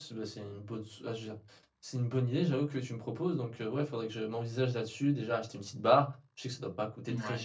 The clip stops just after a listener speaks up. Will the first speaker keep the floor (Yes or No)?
Yes